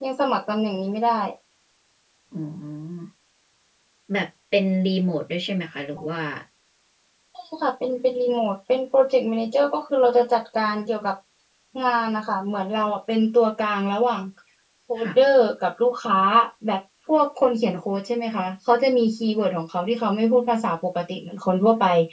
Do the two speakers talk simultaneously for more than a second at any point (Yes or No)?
No